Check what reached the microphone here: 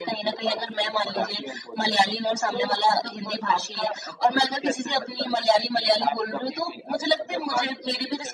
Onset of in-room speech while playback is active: none

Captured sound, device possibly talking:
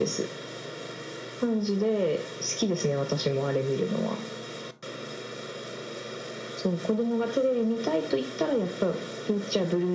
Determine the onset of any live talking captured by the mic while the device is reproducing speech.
none

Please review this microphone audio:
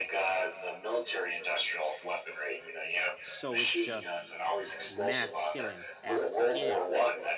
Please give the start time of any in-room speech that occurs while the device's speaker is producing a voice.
3.2 s

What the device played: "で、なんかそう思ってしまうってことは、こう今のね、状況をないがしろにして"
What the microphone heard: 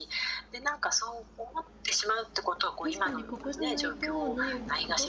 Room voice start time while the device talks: 2.8 s

